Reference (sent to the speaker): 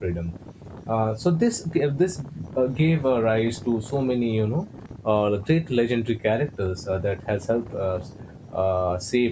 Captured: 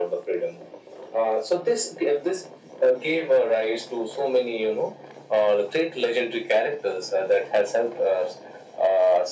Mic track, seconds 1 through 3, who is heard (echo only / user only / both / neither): echo only